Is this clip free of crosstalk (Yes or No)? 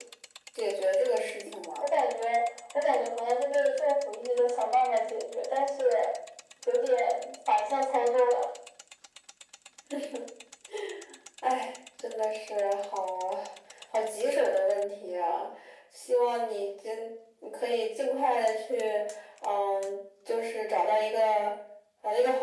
Yes